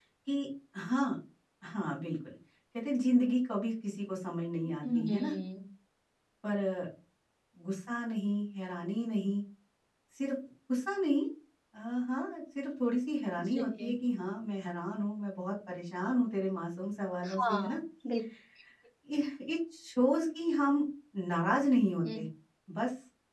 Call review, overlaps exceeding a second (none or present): none